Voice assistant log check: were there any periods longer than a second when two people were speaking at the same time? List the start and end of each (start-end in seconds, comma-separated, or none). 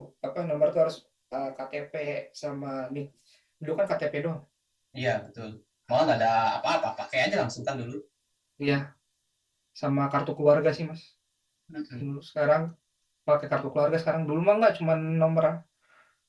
none